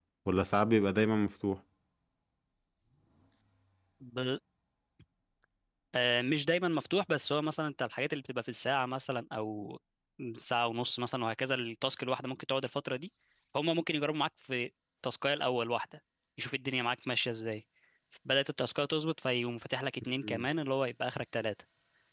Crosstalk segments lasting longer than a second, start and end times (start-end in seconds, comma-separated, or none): none